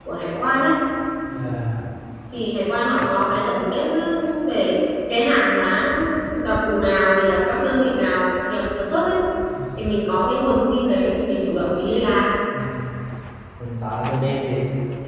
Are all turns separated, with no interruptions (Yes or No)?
Yes